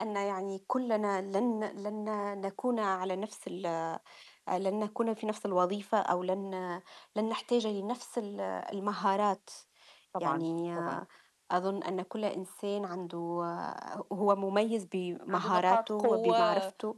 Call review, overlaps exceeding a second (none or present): present